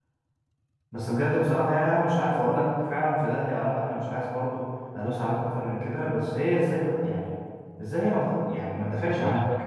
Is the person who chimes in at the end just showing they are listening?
No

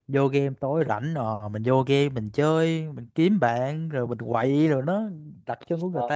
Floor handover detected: Yes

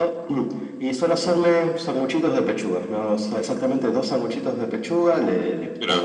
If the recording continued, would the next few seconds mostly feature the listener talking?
No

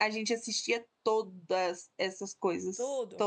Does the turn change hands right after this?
Yes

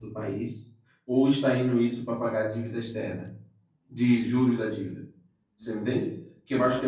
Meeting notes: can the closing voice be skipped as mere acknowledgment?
Yes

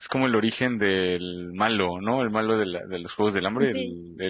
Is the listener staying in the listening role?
Yes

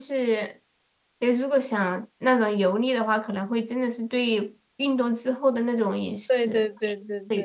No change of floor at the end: No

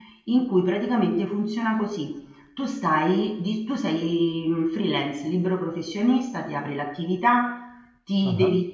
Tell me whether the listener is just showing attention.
Yes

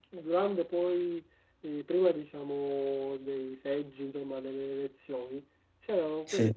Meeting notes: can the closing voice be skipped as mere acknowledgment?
Yes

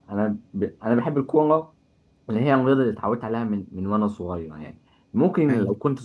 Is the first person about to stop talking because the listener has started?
No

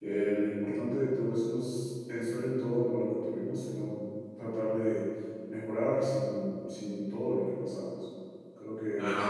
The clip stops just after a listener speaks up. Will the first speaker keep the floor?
Yes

